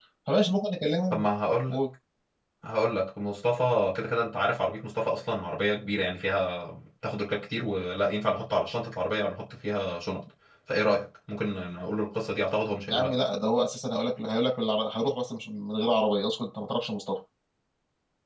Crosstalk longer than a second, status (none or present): none